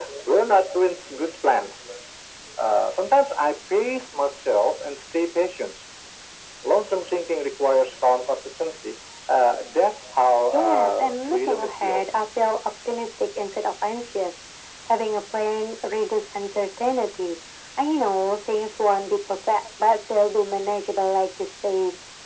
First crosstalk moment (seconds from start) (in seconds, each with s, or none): 10.5 s